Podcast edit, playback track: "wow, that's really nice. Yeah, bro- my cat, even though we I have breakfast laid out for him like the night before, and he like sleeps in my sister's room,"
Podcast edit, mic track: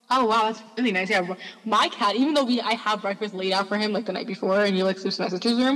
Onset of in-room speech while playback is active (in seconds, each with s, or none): none